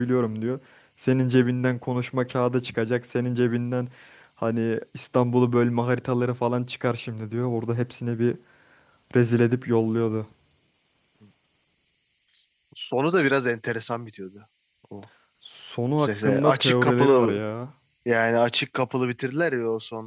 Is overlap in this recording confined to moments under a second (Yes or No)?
No